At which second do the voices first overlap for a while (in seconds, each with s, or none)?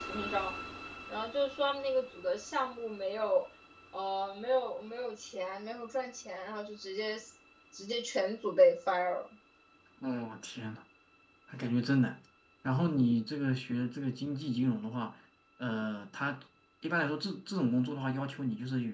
none